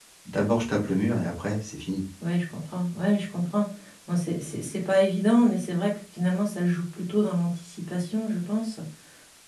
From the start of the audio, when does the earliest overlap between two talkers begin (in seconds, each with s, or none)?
none